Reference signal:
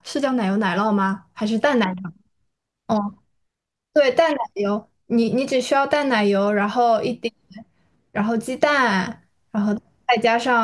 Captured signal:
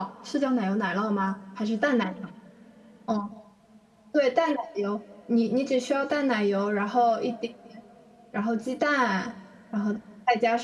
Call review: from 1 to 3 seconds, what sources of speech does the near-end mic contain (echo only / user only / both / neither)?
echo only